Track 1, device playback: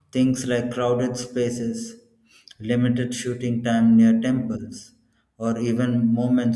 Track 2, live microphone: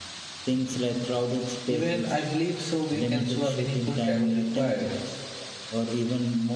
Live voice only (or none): Even I believe so, we can show a meaningful travel required,